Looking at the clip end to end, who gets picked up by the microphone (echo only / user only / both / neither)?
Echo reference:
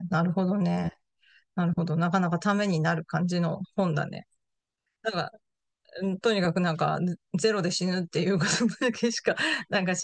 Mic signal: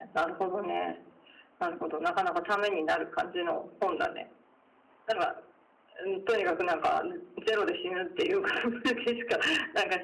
echo only